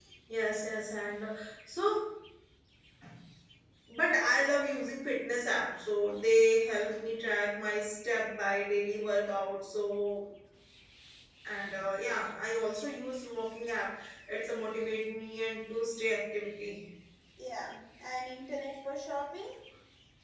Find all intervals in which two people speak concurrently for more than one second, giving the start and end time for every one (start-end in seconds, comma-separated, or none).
none